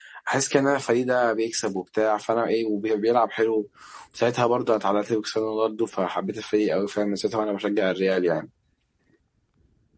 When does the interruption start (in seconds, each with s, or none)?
none